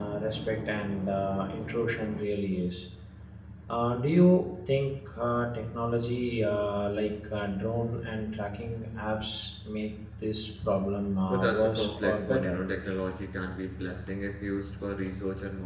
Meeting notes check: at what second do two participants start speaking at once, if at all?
11.3 s

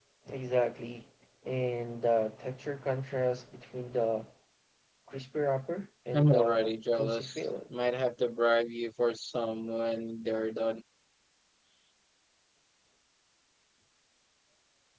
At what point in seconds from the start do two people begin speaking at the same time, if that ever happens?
6.1 s

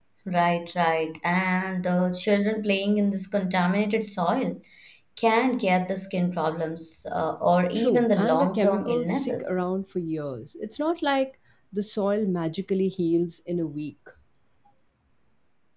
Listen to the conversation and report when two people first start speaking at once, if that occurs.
7.8 s

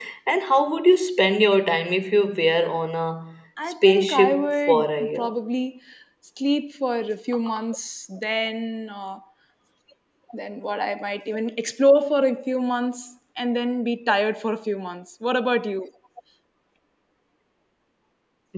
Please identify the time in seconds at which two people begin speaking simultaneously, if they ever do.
3.6 s

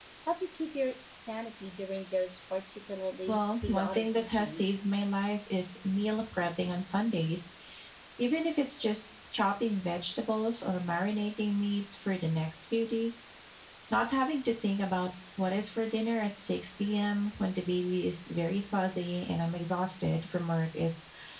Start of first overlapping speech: 3.3 s

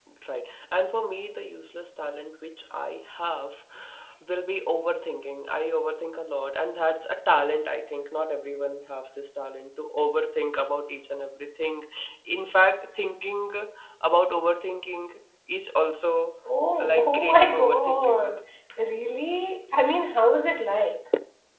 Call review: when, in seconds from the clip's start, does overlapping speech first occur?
16.8 s

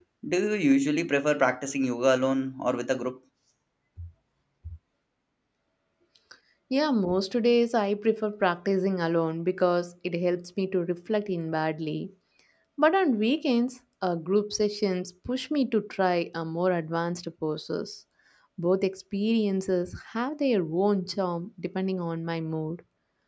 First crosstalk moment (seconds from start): none

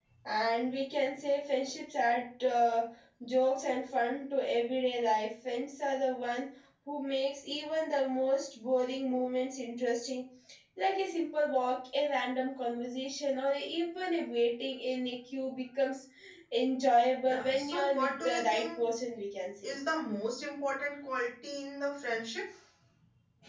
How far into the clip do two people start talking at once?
17.2 s

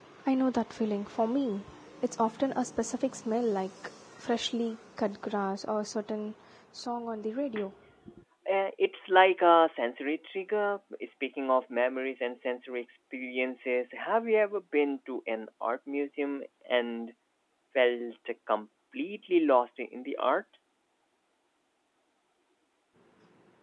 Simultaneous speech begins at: none

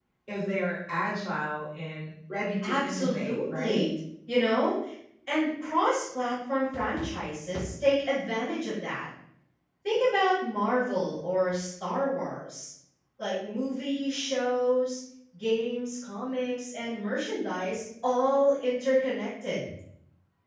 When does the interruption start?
2.6 s

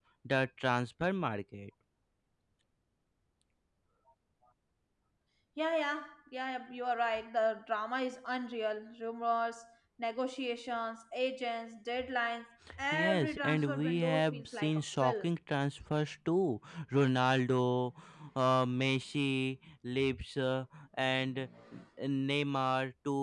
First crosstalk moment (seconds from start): 12.7 s

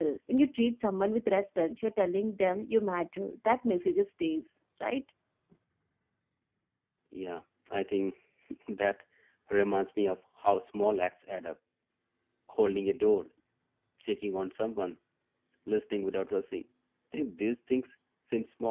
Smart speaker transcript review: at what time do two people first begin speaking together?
none

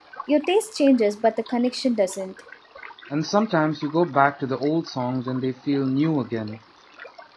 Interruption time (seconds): none

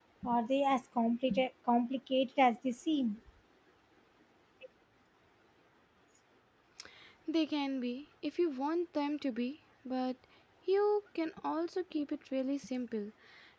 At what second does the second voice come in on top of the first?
none

